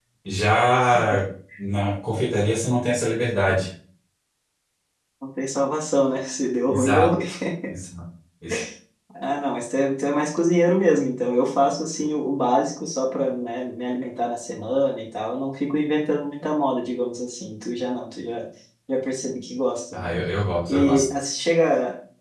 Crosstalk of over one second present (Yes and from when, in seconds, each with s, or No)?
No